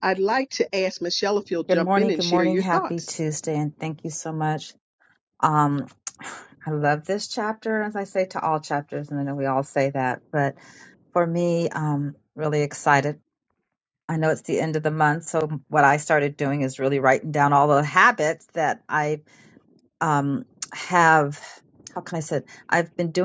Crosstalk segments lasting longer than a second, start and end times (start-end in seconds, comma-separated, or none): 1.7-3.1